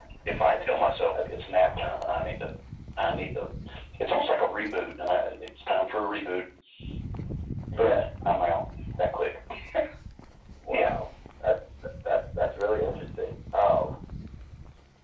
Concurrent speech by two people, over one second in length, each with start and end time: none

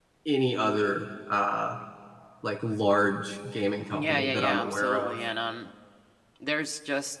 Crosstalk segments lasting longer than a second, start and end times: 3.9-5.2

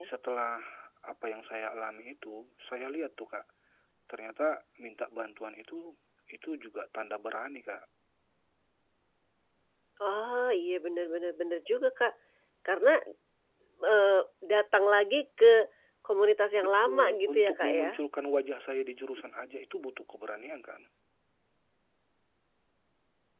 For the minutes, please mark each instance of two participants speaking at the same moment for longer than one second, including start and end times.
16.6-17.9

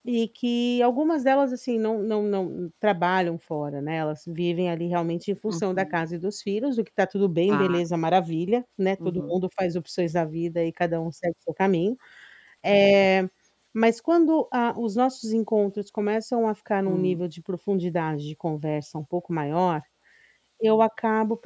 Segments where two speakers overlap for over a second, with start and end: none

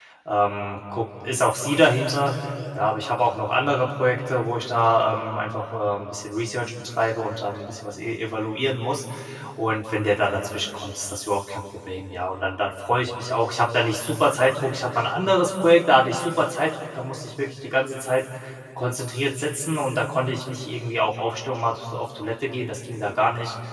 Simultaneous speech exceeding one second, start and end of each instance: none

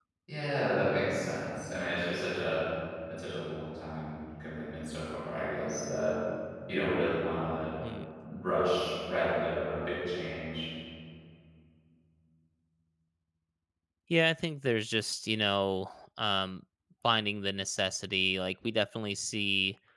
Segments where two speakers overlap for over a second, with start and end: none

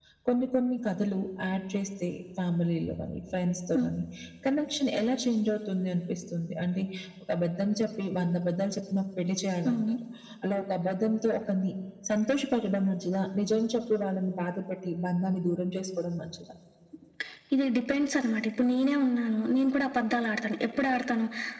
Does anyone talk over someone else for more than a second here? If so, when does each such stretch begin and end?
none

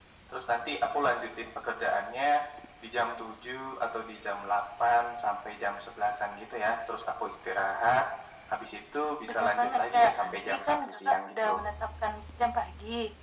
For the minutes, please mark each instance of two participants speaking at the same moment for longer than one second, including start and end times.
9.3-11.6

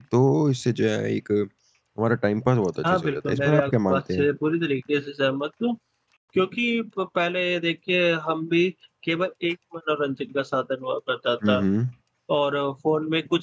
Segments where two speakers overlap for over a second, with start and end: 2.9-4.3

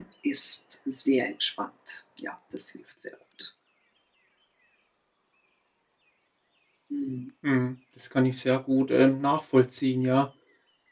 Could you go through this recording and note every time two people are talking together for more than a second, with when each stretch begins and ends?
none

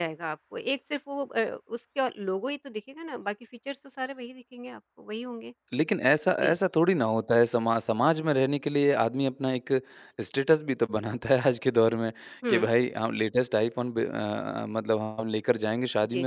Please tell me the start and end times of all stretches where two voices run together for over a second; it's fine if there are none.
none

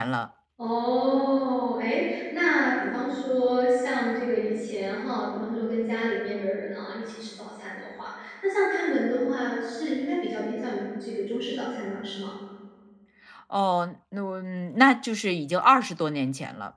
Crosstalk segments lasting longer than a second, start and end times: none

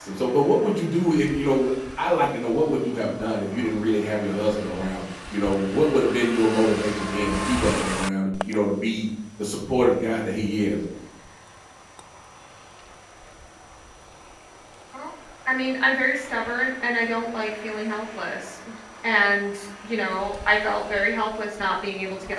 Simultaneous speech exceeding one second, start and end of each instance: none

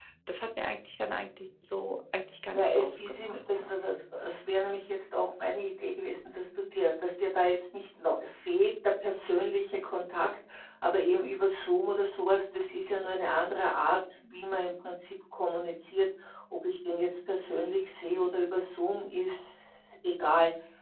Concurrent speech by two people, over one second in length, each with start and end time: 2.5-3.8

